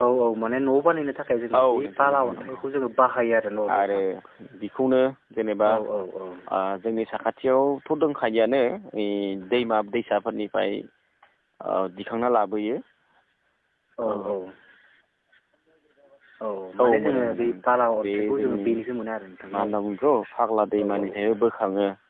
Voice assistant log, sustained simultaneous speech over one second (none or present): present